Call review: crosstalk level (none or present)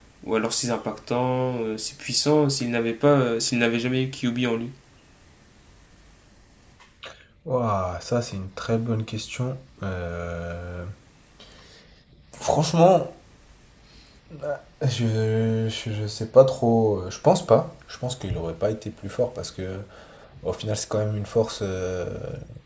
none